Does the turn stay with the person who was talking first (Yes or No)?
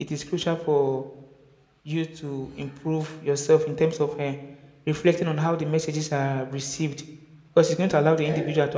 Yes